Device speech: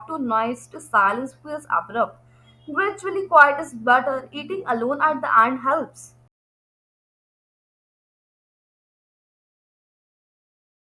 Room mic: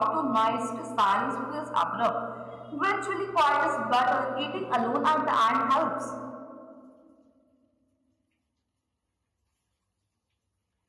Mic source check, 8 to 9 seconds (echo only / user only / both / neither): neither